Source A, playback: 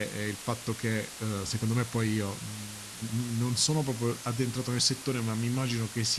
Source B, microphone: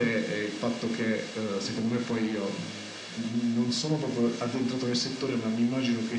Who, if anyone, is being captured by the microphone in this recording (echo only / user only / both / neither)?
echo only